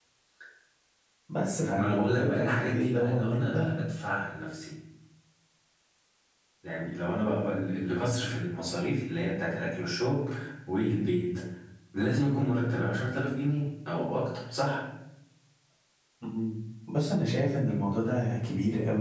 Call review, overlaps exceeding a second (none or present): present